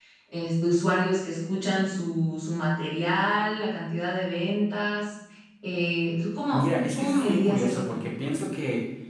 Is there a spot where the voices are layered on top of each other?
Yes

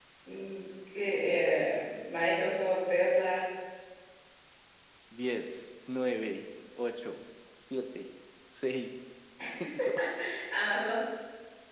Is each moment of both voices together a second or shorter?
Yes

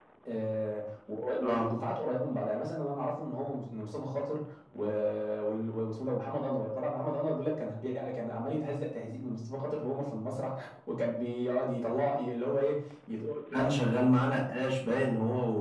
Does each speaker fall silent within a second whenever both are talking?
Yes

